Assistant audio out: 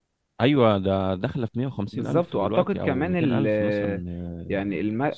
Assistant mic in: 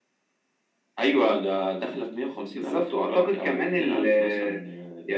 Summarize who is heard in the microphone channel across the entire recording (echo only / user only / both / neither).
echo only